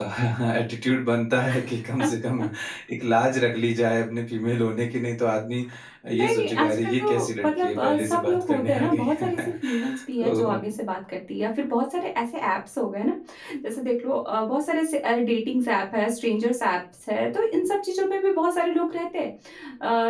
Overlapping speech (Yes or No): Yes